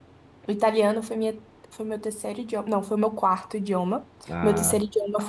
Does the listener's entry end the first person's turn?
No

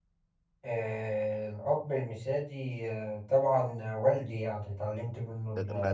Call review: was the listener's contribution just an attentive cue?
No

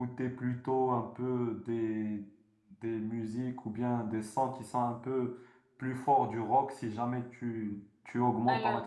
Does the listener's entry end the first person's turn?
No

